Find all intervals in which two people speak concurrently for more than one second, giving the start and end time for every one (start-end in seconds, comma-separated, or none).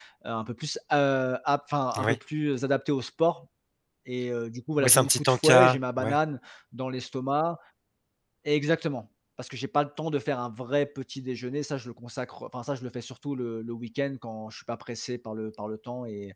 4.8-6.2